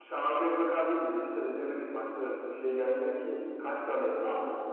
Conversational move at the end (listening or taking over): listening